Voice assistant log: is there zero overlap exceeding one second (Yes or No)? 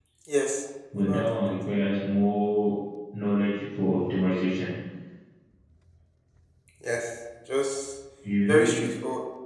Yes